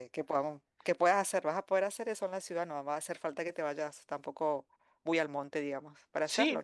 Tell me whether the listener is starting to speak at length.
Yes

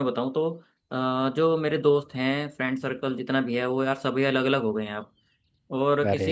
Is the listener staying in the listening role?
Yes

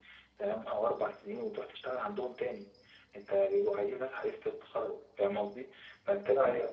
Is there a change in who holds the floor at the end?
No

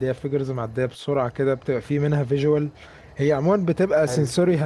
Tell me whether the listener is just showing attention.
Yes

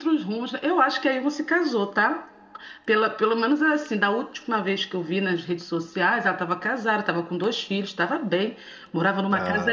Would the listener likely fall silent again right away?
Yes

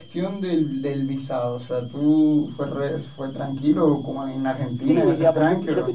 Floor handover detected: Yes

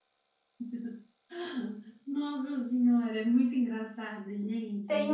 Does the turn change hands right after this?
Yes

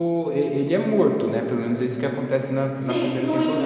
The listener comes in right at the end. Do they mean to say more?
Yes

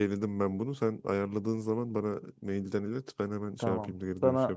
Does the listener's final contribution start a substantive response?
Yes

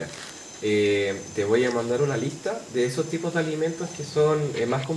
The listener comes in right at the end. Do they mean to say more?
No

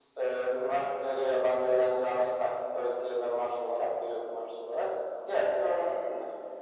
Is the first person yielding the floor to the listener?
Yes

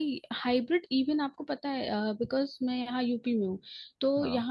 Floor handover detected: No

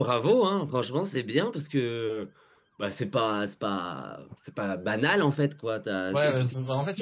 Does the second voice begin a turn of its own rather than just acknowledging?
Yes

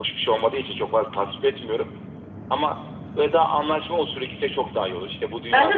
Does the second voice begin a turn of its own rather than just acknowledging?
Yes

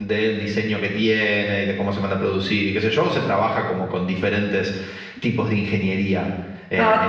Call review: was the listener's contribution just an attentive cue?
No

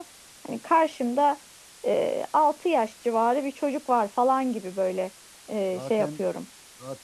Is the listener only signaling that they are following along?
No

